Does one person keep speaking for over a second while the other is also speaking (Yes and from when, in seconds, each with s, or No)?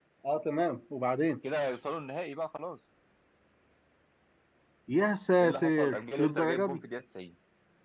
Yes, from 5.4 s